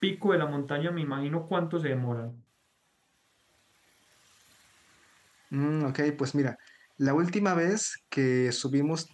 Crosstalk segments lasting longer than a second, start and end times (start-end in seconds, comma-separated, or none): none